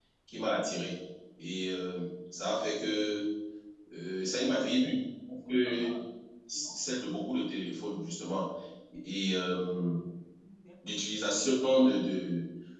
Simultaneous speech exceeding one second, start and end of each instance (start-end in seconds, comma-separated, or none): none